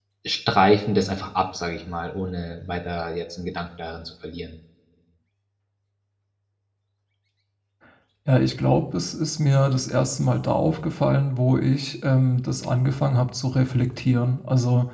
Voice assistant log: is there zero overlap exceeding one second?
Yes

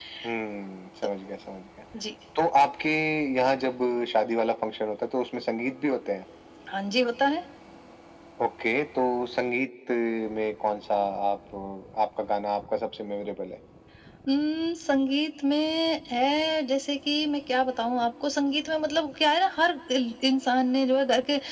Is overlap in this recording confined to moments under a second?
Yes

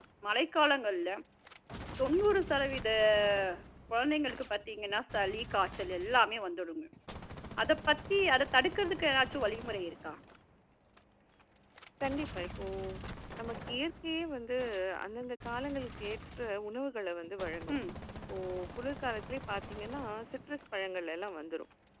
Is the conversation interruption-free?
Yes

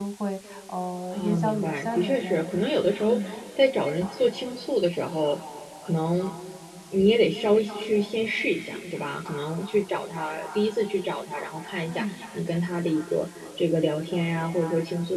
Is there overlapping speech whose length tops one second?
Yes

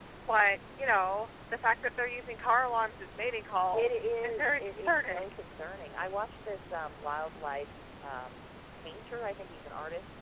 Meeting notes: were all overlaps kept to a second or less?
No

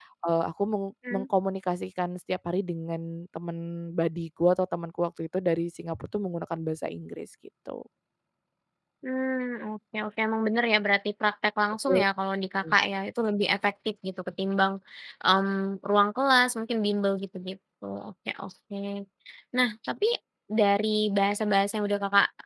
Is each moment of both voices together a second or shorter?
Yes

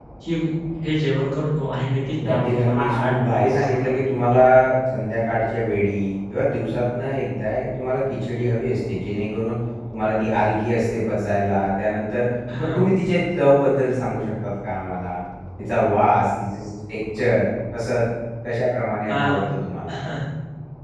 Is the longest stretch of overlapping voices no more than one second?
No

